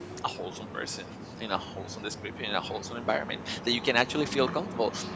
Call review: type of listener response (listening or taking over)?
listening